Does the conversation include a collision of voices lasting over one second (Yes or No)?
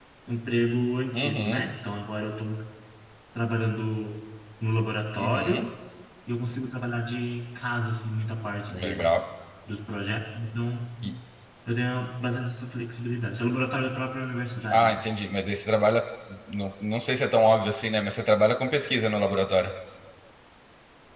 No